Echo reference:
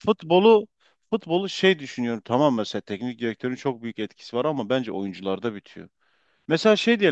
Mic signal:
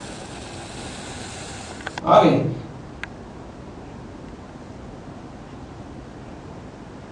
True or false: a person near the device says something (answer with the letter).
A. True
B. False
A